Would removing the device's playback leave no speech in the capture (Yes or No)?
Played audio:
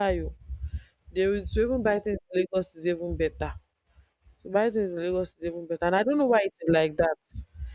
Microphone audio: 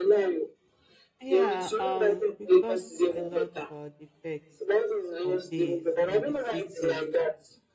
No